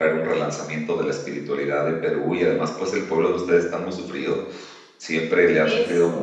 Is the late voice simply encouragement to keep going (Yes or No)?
Yes